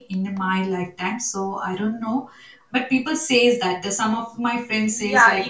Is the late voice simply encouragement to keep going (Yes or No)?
No